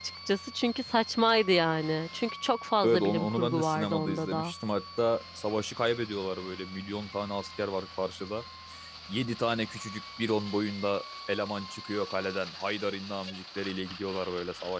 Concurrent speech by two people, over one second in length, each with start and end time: 2.8-4.5

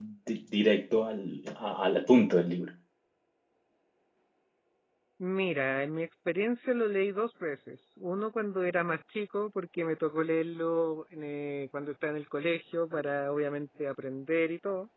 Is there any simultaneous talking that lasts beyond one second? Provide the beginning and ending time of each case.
none

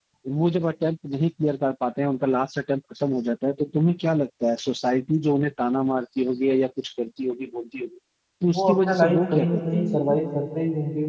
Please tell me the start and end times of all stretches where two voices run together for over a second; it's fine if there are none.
8.5-10.2

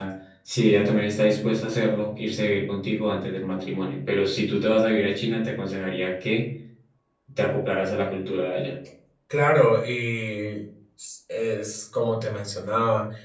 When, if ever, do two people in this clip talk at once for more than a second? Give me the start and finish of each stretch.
none

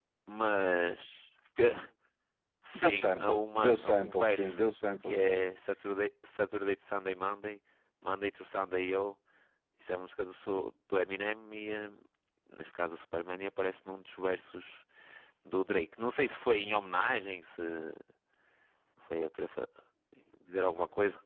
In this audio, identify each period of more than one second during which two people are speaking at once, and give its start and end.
2.8-4.6

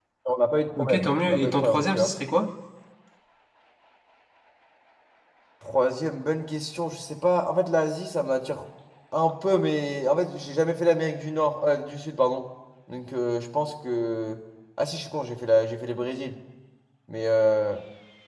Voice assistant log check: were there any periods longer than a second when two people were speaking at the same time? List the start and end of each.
0.8-2.1

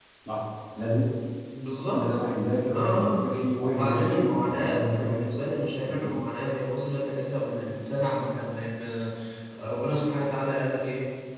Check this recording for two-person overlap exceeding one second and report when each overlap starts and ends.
3.6-5.0

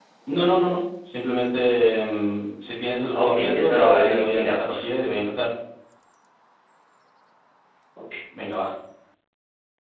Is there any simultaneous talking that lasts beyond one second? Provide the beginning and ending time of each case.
3.1-4.9

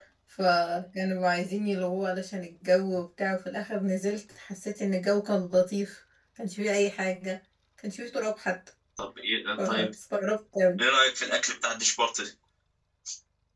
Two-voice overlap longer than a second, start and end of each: none

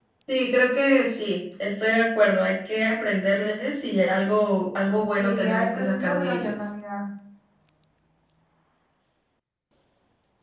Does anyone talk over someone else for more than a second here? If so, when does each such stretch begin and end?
5.2-6.5

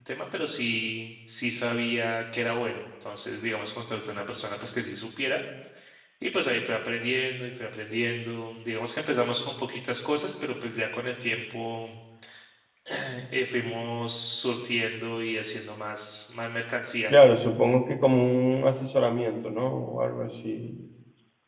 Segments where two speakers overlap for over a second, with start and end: none

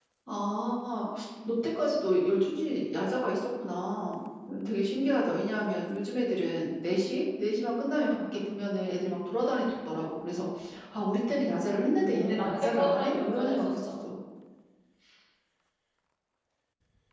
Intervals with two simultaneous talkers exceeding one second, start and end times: 11.9-13.9

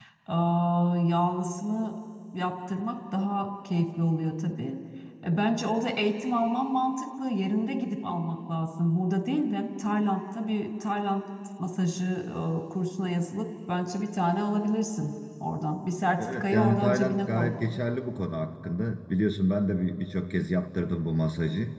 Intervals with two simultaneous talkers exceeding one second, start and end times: 16.2-17.5

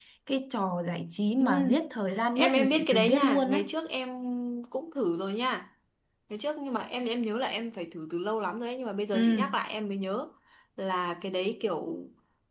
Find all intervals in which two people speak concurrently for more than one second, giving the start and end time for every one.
2.4-3.6

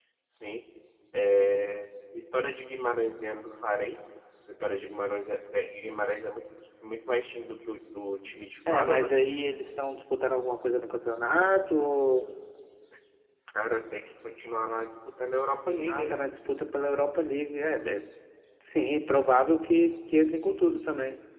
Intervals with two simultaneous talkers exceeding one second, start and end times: none

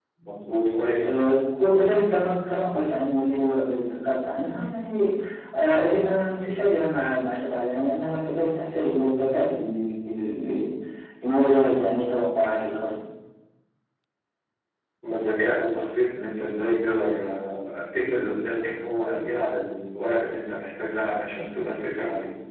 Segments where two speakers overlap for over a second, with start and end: none

